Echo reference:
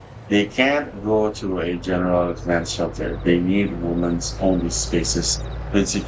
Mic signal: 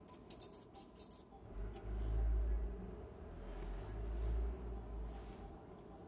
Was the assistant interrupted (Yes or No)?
No